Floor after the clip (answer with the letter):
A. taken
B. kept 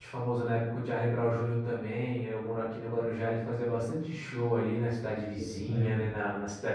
B